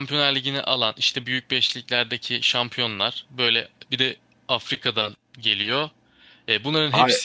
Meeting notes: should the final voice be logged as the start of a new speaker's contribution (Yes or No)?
No